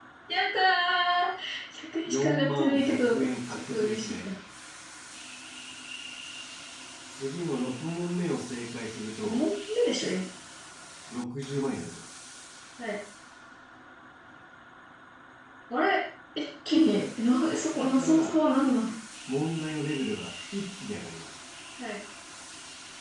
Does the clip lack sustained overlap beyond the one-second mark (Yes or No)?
No